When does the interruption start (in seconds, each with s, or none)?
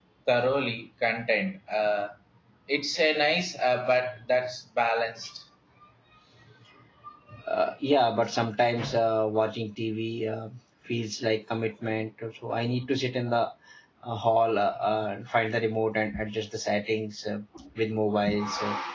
none